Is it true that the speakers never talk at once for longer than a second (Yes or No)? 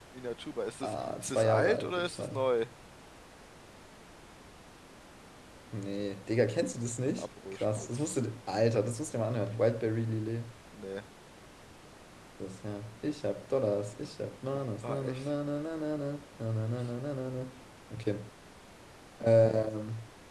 No